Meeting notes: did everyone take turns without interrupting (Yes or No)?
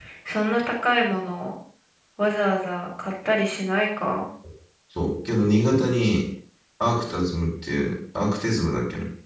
Yes